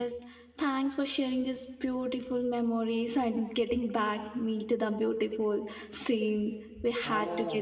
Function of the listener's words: taking over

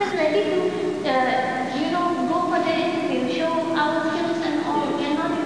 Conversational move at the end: listening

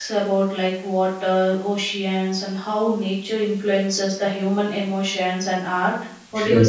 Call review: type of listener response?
taking over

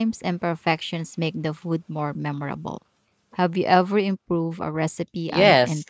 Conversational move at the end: taking over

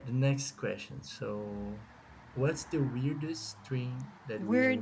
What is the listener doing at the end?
taking over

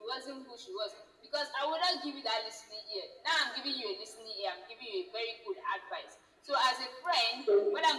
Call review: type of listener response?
listening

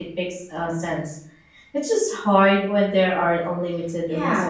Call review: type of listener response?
taking over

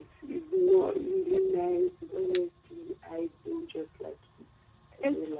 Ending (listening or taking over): taking over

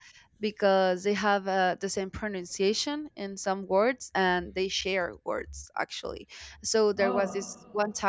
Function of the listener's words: listening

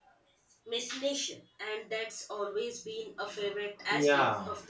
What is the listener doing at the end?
taking over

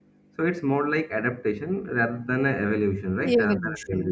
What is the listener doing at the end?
taking over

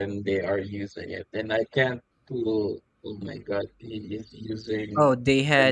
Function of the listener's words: taking over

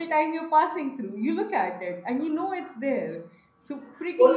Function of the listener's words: taking over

